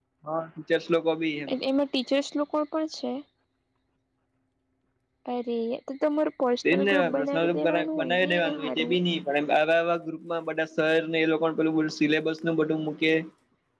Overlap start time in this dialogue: 6.7 s

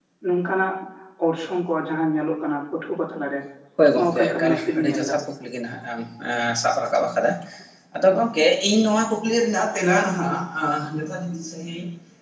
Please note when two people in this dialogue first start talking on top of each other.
3.9 s

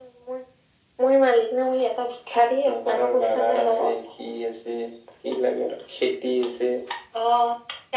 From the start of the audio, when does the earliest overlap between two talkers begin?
2.6 s

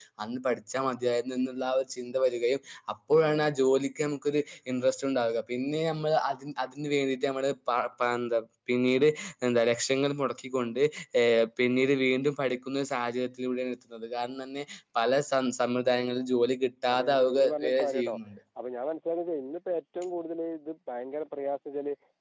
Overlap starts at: 16.9 s

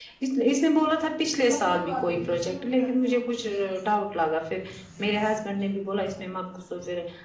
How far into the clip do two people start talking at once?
1.5 s

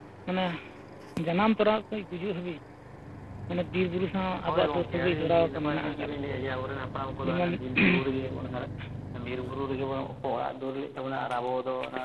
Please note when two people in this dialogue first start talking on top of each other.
4.5 s

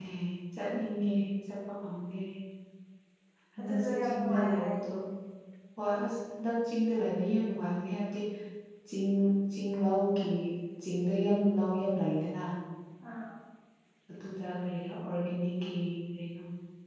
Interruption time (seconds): 3.6 s

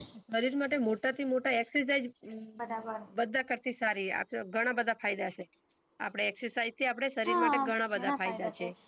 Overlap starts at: 7.2 s

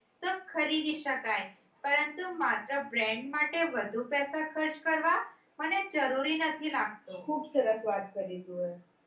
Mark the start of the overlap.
none

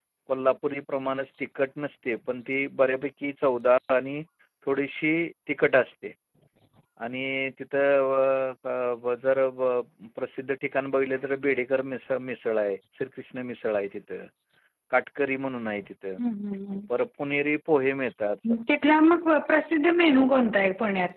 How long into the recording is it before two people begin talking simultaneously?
none

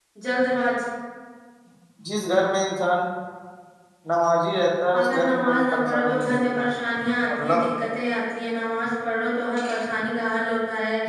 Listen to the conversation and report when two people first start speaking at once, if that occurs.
5.0 s

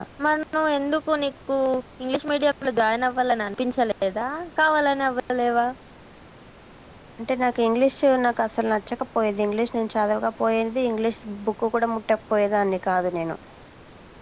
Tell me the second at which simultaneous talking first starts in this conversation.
none

